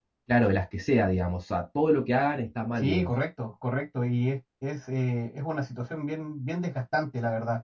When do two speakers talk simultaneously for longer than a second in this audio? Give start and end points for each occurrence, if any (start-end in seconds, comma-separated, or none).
none